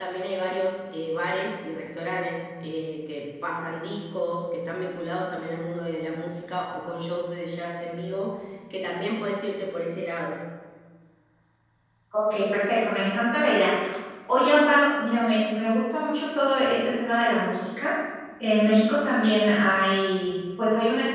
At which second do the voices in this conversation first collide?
none

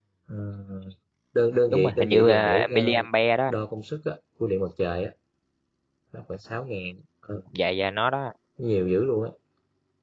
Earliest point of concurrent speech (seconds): 1.7 s

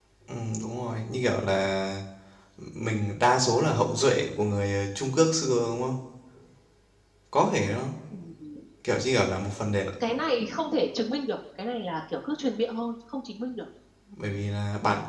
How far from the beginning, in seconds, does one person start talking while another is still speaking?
none

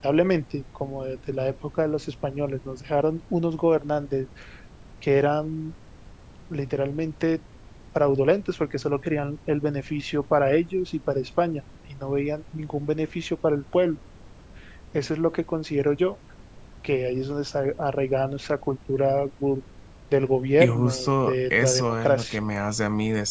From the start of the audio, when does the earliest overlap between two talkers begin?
20.6 s

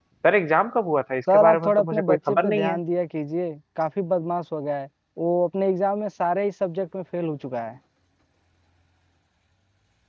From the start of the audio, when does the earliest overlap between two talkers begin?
1.3 s

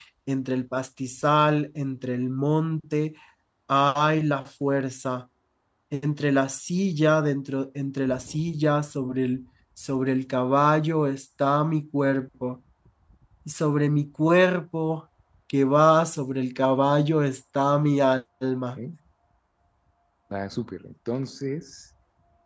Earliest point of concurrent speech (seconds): none

